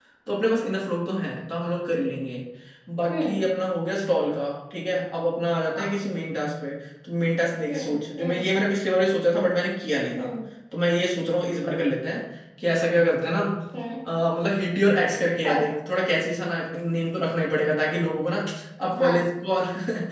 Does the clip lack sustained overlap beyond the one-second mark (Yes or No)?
Yes